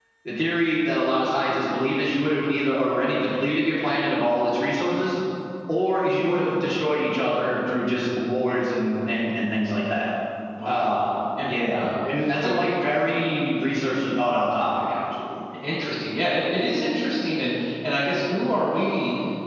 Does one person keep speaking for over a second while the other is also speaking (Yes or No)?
No